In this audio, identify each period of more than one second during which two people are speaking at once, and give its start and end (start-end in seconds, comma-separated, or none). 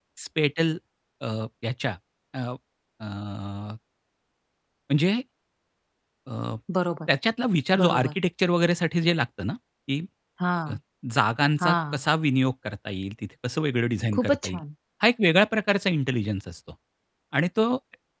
none